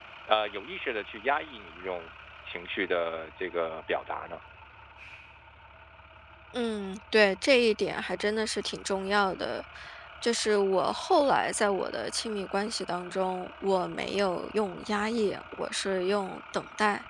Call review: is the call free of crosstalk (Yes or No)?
Yes